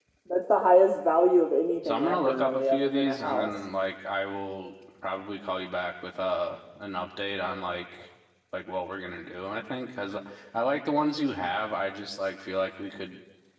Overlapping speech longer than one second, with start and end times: 1.8-3.5

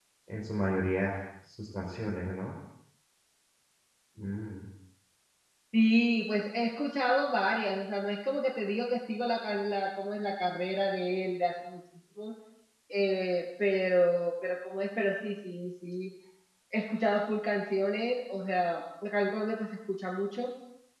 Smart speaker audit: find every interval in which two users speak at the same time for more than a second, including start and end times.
none

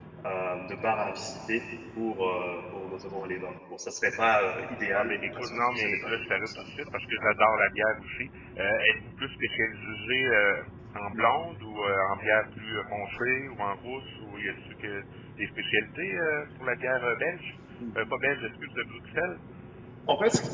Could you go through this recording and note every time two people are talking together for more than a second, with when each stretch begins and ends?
4.9-6.6

